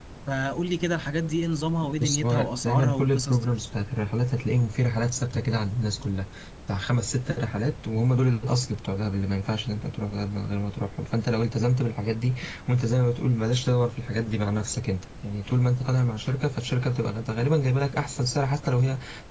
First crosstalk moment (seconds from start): 2.0 s

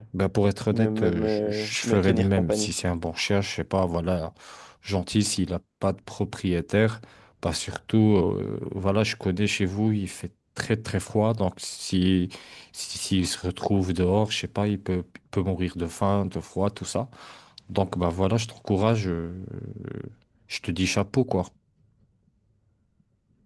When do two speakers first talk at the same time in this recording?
0.7 s

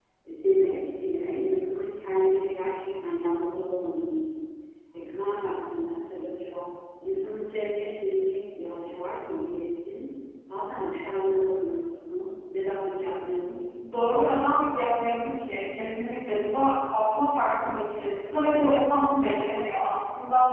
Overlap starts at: none

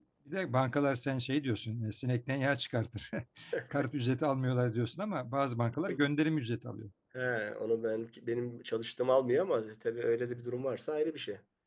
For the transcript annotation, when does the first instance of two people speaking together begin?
none

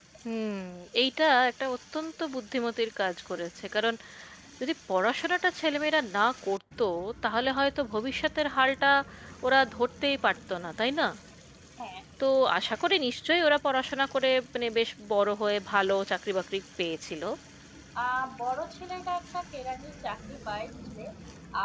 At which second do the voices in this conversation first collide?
none

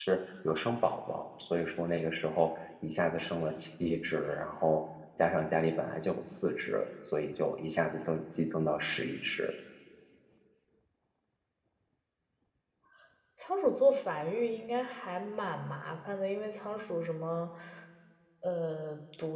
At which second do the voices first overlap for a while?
none

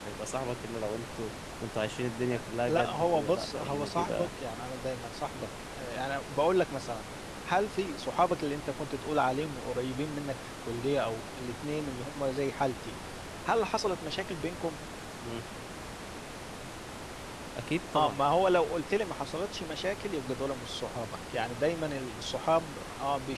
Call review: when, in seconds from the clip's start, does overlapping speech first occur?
2.7 s

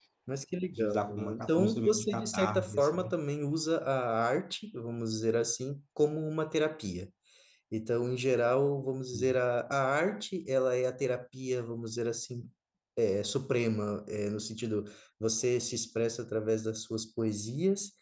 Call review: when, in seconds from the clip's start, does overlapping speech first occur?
0.7 s

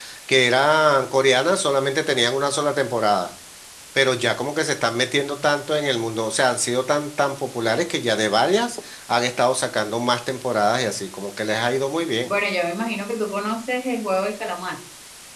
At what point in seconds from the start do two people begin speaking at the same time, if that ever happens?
none

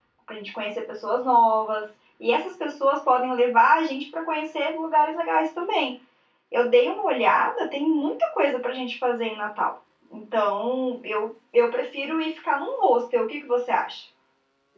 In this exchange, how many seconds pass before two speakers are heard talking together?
none

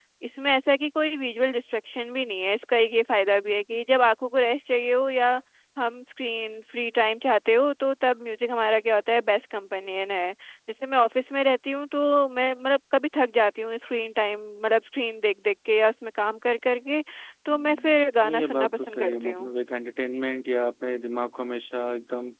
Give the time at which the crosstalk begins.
17.5 s

